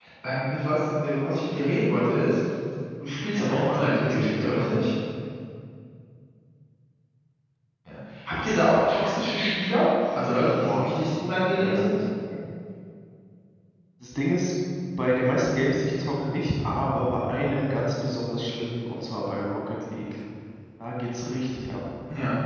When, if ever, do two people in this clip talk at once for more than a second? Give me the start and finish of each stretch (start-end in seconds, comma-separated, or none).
3.3-4.7